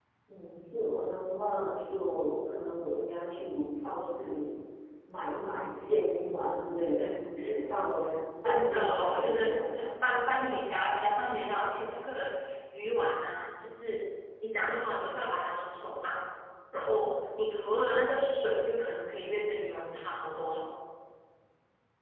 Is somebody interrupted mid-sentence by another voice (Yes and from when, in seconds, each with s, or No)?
Yes, from 8.4 s